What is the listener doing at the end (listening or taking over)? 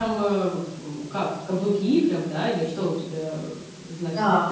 taking over